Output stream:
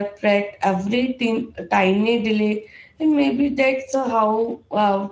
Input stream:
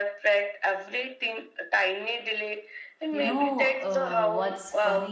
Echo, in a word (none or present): present